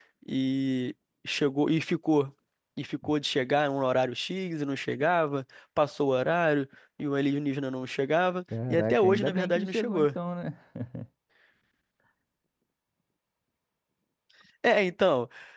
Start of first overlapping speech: 9 s

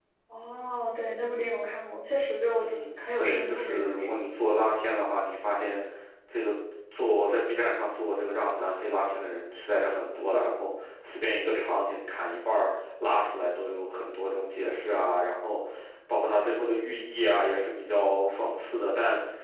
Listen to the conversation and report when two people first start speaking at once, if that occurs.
3 s

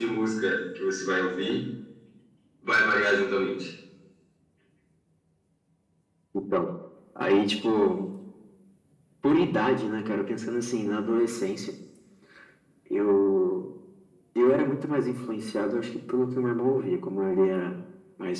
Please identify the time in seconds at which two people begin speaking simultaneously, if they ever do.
none

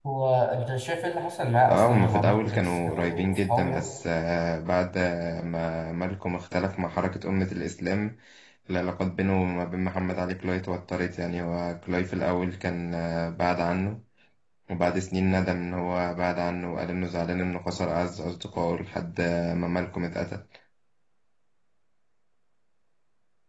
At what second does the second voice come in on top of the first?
2 s

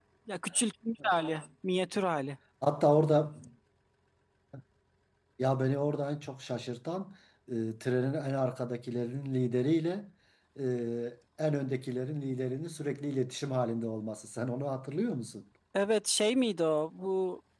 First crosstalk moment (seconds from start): none

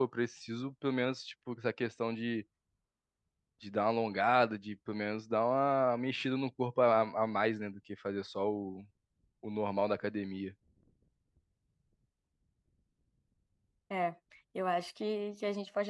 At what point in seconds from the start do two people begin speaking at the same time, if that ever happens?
none

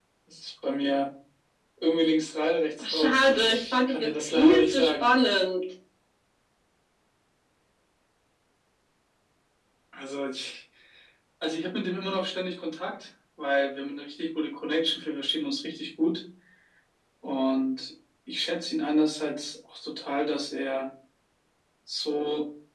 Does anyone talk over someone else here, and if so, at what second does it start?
3 s

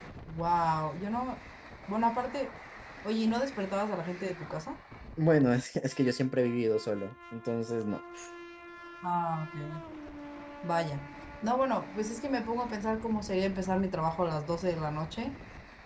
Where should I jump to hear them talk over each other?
none

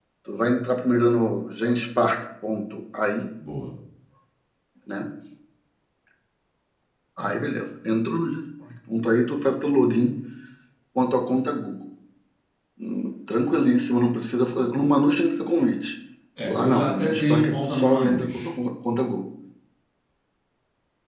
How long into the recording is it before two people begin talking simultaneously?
17 s

